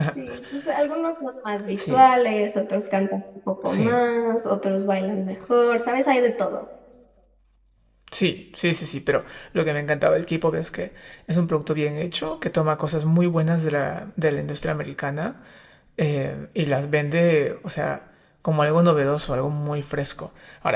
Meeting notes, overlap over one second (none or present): none